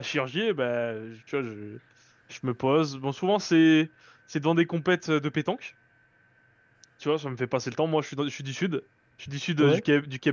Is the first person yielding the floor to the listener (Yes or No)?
No